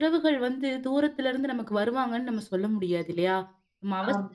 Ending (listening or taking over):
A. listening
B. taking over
A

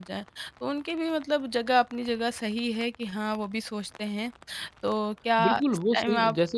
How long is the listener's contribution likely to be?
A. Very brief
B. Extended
B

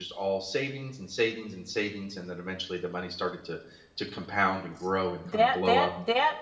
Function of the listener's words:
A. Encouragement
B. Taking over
B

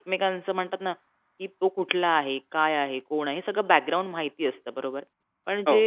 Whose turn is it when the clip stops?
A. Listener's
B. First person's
B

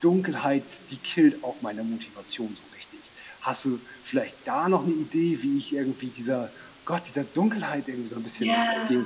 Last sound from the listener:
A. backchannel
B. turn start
B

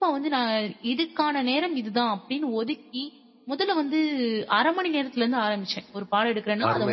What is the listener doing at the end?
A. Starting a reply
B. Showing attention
A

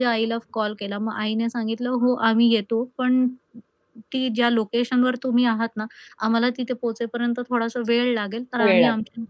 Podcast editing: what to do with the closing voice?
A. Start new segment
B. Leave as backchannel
B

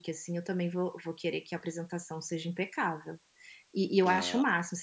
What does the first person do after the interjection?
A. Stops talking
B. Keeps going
B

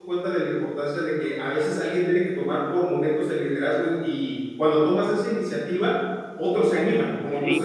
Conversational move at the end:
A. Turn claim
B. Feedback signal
A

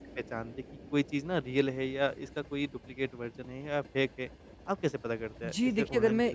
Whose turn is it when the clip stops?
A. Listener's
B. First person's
A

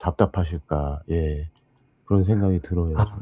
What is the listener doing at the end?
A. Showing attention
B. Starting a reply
B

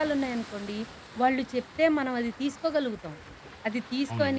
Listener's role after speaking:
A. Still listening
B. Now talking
A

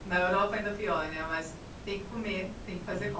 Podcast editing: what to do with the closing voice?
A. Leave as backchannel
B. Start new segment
B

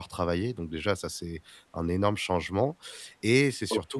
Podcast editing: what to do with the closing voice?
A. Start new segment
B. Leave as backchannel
B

